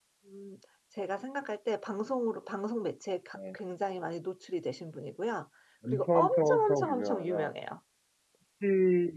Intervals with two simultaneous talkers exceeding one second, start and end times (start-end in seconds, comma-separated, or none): 5.9-7.5